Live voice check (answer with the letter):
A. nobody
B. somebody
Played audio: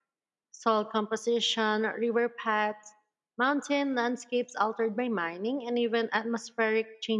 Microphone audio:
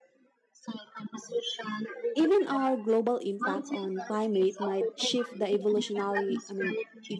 B